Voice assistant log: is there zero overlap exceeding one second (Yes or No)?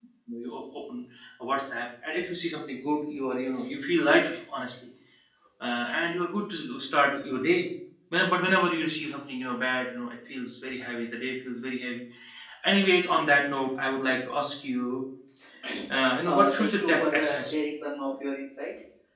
No